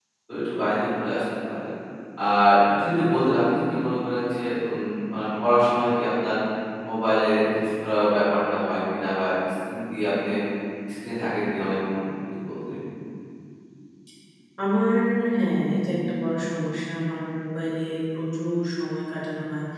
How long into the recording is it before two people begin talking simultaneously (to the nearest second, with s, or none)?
none